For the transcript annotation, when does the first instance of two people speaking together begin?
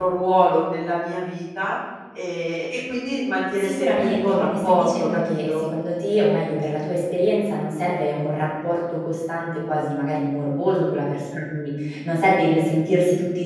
3.6 s

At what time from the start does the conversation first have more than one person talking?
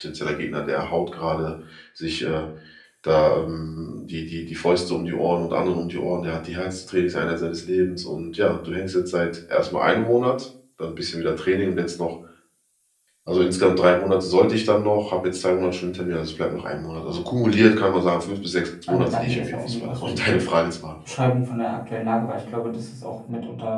18.9 s

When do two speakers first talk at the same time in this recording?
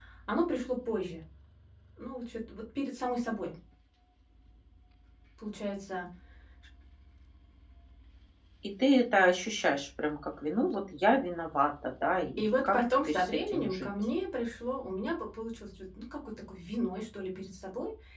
12.4 s

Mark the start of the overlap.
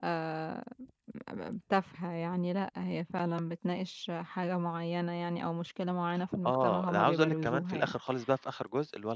6.5 s

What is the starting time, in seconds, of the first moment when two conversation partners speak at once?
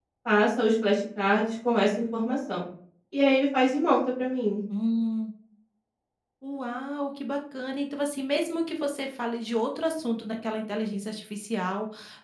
none

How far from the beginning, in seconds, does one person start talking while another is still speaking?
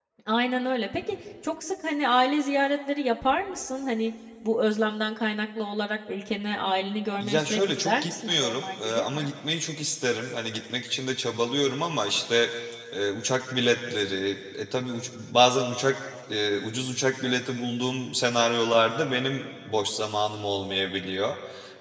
7.2 s

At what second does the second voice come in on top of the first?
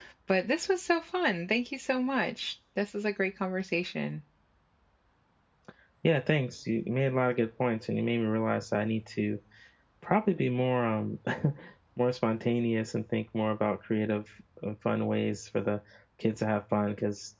none

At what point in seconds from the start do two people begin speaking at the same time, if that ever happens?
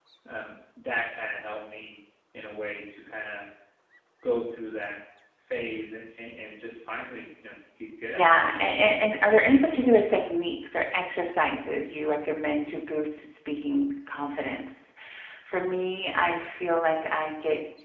8.1 s

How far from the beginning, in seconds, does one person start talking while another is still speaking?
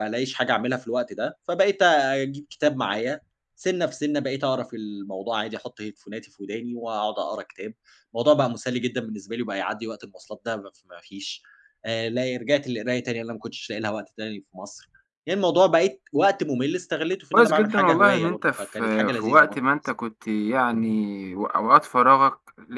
17.3 s

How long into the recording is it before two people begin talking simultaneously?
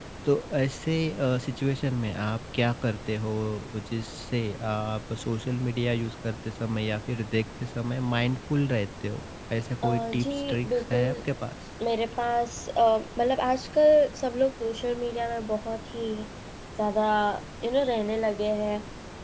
9.8 s

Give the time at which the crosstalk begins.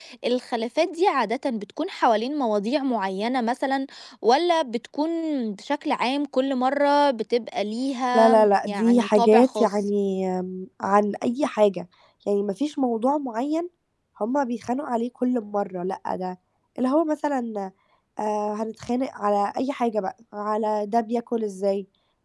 8.1 s

